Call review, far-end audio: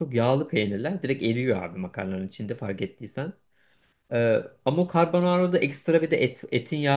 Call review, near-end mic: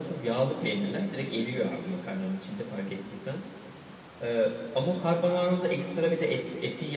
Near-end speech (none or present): none